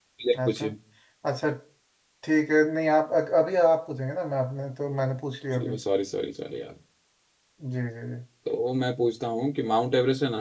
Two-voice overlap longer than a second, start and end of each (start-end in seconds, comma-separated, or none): none